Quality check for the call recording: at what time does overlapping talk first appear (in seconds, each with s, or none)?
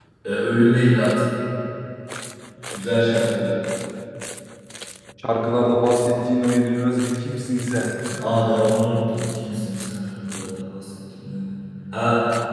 none